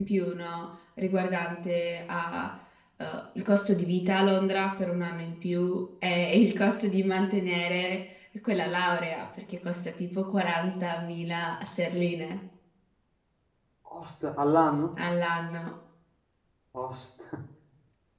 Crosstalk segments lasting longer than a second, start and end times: none

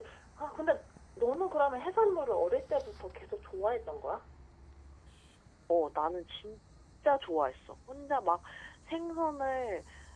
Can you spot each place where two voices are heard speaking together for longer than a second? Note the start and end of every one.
none

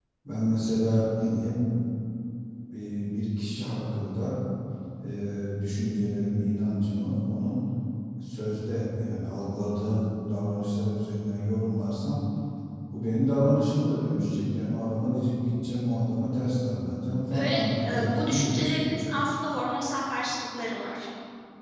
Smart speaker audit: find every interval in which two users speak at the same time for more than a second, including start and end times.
17.3-18.9

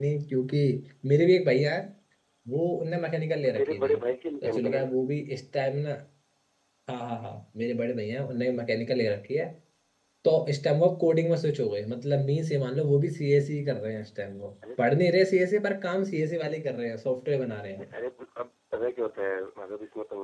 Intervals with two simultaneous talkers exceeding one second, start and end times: none

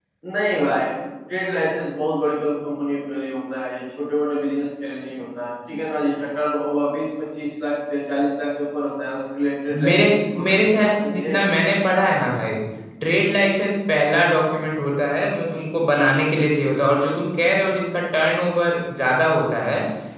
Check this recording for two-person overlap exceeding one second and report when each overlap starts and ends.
9.9-11.4

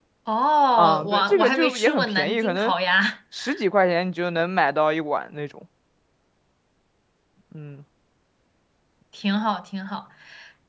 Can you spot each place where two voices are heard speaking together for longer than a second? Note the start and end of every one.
0.8-2.7

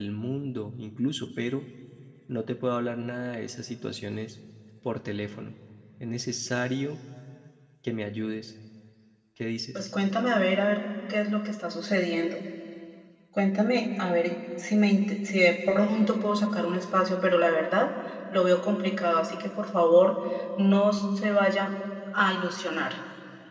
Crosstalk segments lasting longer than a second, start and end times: none

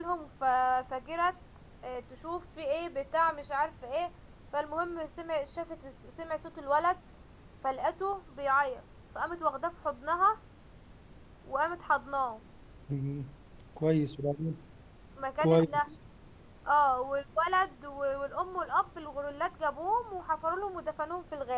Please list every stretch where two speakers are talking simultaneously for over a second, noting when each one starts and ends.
none

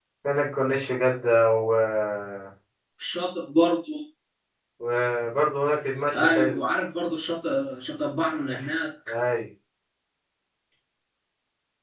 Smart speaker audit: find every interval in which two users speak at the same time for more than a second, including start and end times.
none

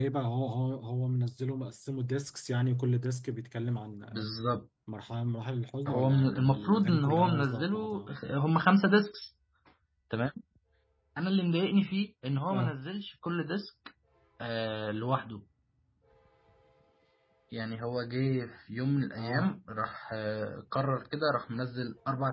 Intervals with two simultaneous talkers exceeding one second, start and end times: 5.9-8.1

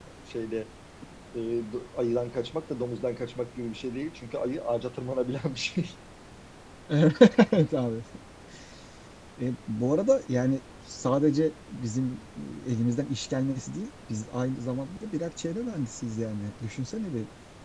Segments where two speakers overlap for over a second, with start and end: none

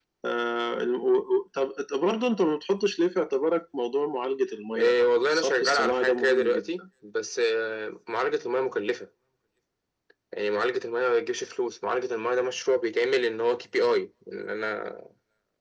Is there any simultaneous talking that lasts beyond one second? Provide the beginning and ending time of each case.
4.8-6.6

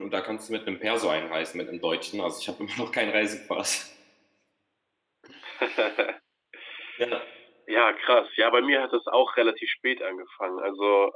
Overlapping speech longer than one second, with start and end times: none

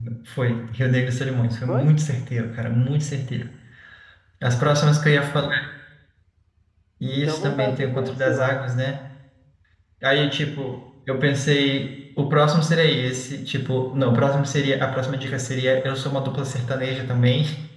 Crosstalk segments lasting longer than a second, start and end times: 7.2-8.5

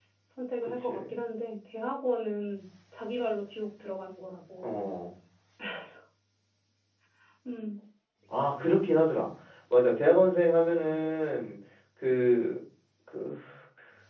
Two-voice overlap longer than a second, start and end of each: none

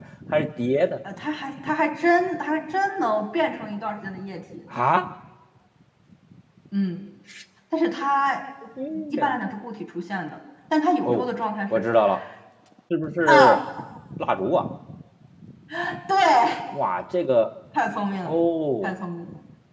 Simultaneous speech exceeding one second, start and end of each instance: none

